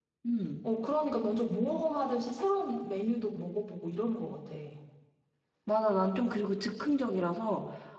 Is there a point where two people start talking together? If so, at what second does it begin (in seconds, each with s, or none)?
none